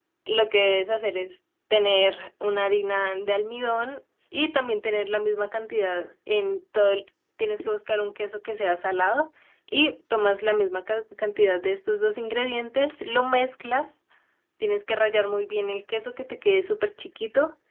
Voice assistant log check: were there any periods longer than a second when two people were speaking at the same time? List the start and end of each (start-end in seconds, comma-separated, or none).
none